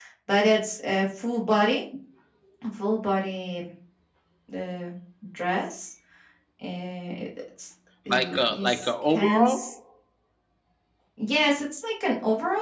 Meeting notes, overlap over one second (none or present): present